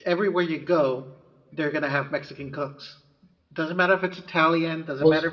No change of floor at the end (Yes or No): Yes